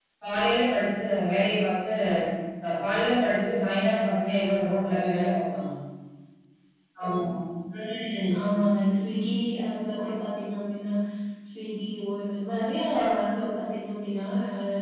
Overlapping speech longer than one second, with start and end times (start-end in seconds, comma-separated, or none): none